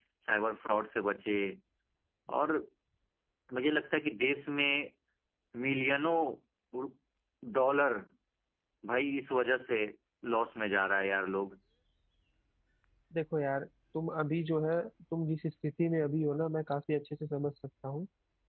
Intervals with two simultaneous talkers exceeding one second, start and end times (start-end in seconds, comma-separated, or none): none